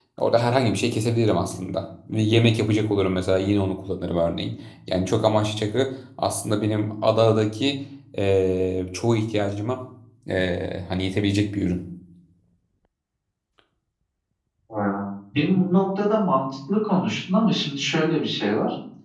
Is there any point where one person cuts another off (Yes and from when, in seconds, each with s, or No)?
No